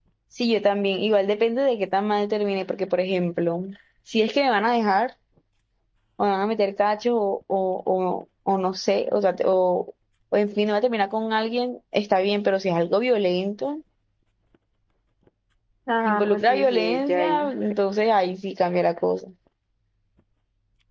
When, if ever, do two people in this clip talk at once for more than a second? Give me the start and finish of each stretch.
16.1-17.5

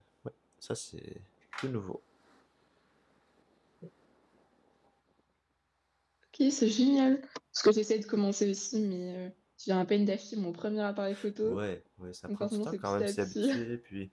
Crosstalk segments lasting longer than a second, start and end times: 12.3-13.5

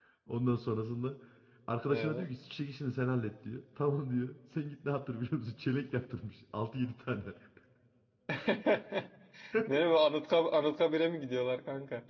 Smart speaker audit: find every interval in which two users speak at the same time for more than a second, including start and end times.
none

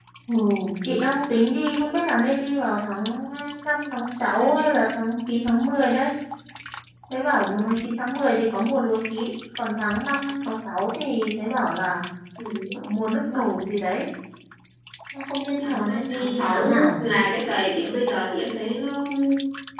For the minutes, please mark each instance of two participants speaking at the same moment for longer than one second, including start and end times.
15.6-17.0

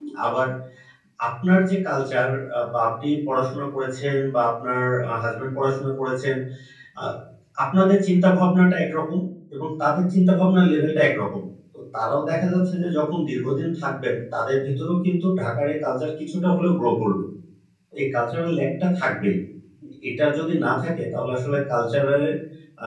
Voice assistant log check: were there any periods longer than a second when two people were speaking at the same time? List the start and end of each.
none

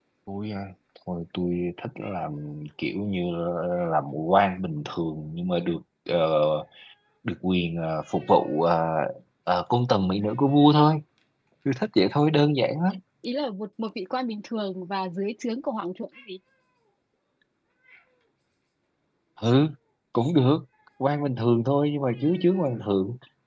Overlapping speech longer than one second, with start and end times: none

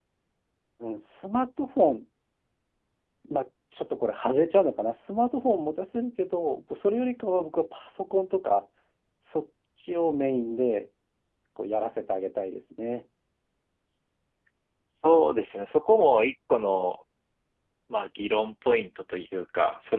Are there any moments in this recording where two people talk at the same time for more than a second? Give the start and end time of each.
none

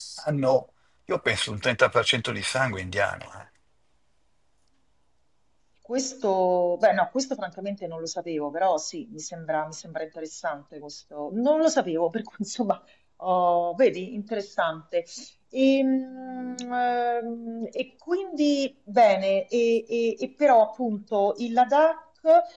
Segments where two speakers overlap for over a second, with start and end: none

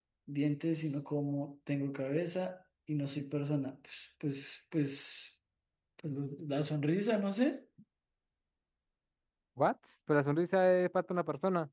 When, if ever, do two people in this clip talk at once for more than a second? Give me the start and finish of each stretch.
none

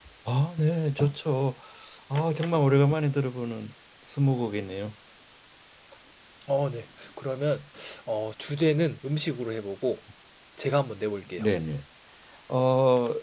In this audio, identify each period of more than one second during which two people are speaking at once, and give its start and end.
none

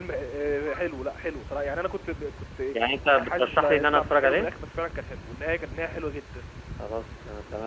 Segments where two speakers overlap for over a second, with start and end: 3.0-4.5

